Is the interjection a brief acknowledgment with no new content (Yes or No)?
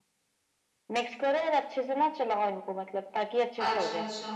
No